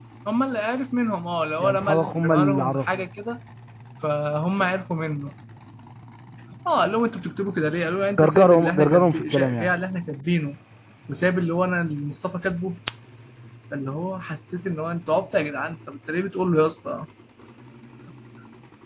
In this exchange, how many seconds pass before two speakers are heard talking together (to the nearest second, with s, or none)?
2 s